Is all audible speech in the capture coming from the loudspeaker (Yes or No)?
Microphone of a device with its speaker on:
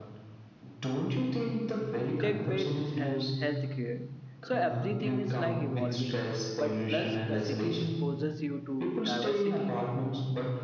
No